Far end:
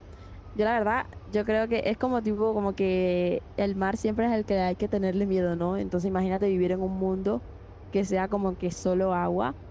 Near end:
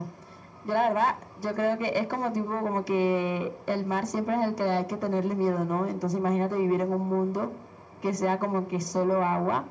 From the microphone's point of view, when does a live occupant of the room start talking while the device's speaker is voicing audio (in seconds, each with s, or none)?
none